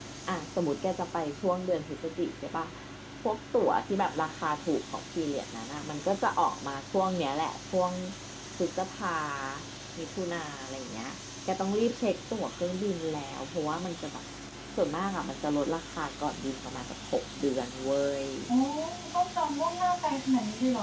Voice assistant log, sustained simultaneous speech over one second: none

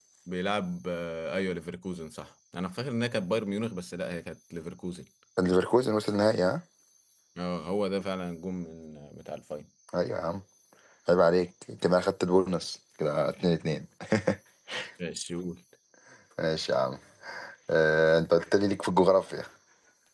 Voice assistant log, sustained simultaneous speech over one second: none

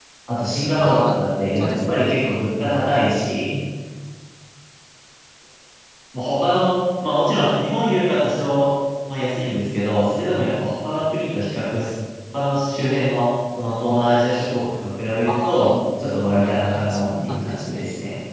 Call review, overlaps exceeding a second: present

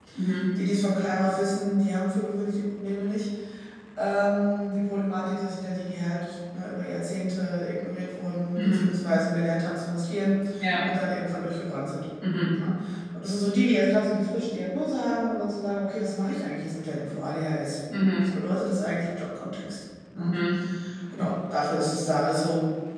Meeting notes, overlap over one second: none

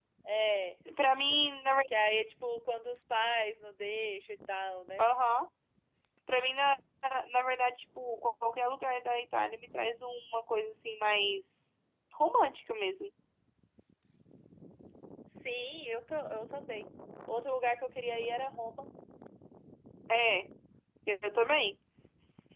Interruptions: none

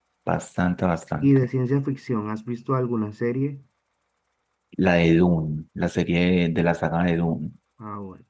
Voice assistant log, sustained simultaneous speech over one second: none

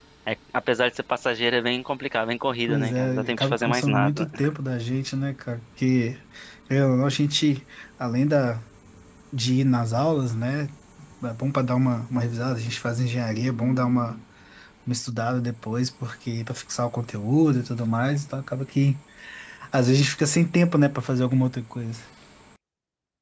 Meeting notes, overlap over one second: present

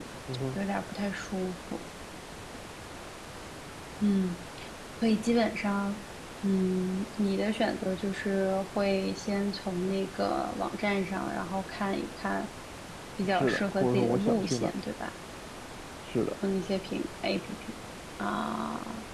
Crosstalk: present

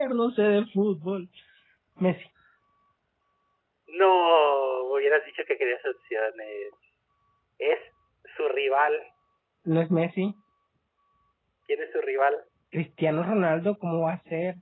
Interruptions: none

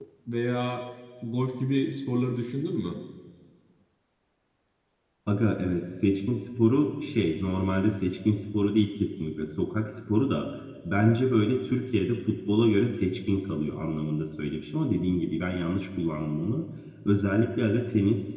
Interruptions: none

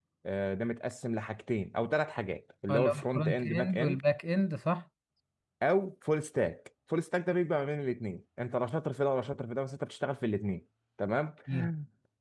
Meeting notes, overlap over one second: present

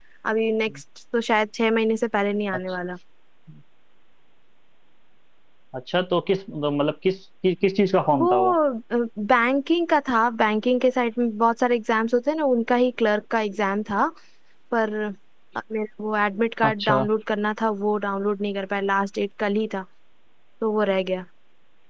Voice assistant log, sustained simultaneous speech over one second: none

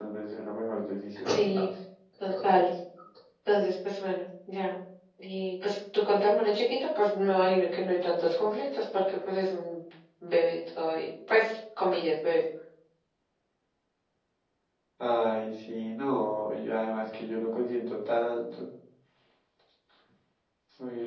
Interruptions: none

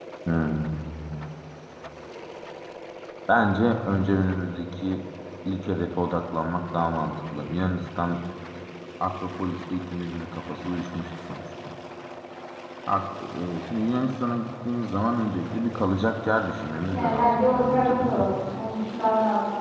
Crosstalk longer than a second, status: present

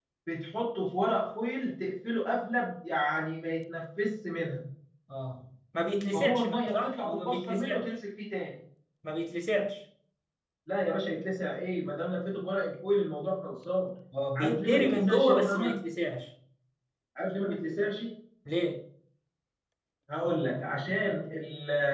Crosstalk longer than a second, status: present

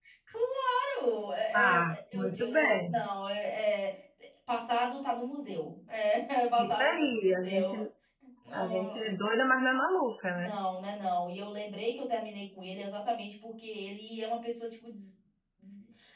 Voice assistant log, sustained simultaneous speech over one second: present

